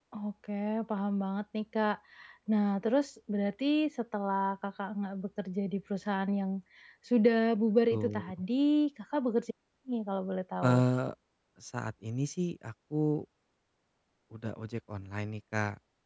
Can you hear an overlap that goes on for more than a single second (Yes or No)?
No